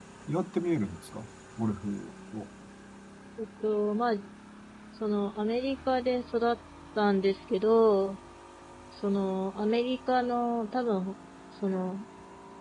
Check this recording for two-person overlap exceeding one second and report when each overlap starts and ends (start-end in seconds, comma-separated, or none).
none